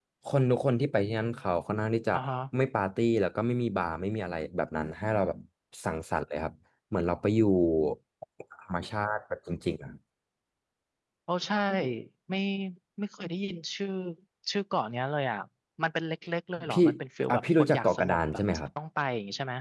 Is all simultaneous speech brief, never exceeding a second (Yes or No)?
No